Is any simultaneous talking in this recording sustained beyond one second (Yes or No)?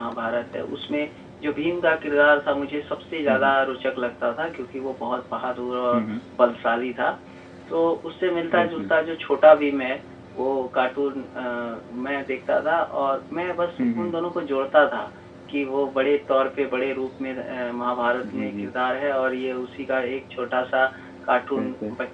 No